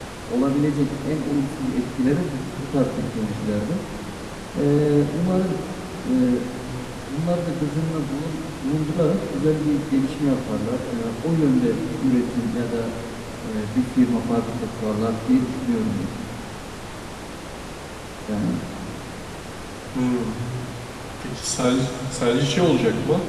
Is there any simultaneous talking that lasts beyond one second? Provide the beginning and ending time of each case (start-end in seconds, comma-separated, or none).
none